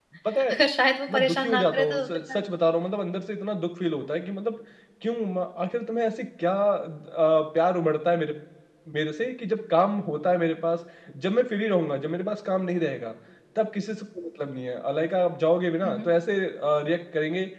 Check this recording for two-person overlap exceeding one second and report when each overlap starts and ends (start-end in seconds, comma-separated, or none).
1.1-2.4